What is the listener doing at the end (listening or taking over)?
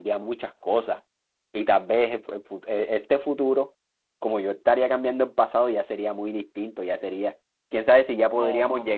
taking over